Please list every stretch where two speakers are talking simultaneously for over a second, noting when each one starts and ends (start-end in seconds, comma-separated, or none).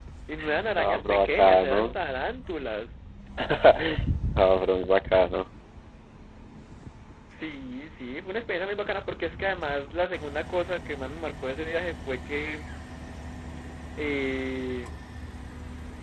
0.8-2.0